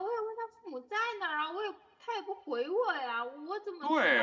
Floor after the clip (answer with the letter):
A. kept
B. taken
B